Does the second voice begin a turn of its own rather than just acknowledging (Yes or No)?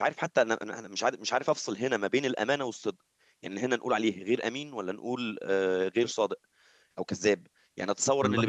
No